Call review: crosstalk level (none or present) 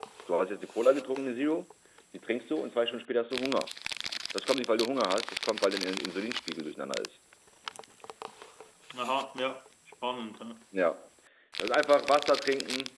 none